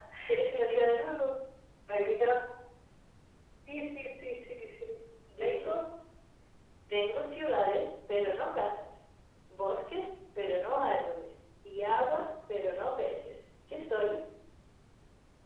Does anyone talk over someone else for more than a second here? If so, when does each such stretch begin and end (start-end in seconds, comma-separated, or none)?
none